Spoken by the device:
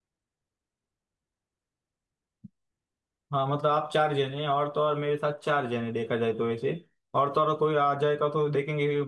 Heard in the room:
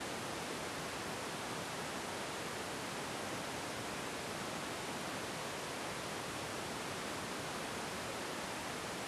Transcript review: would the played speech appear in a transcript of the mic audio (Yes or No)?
No